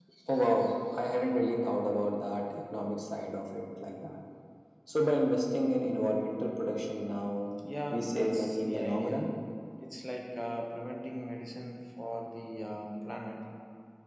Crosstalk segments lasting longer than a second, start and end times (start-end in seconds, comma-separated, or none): 7.9-9.3